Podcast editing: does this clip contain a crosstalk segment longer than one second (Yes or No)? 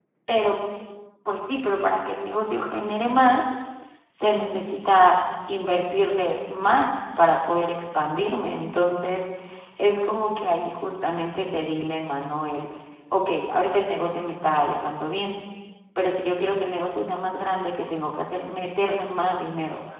No